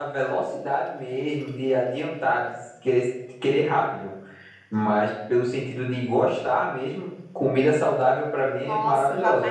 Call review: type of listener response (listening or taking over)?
taking over